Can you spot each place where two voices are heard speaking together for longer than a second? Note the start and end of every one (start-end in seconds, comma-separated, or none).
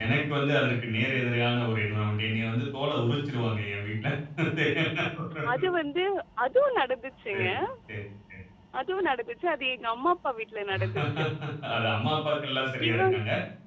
none